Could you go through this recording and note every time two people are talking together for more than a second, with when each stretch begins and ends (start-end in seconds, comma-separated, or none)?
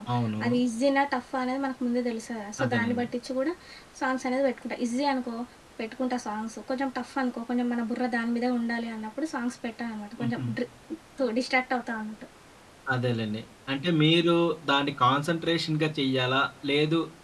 none